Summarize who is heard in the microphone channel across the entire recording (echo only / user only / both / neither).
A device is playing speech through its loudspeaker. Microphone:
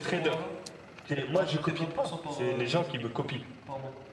both